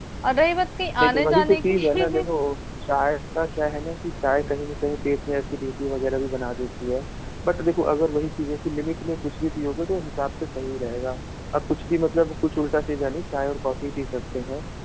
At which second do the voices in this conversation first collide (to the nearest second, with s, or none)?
1 s